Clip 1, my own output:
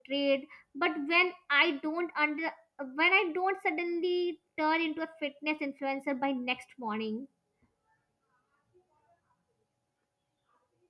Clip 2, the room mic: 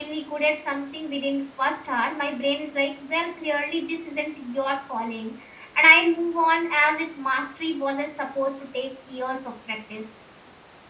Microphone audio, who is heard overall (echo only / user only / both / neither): user only